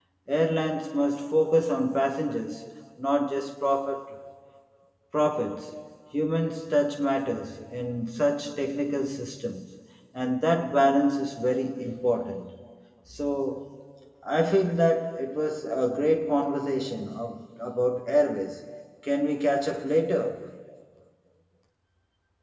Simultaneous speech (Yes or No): No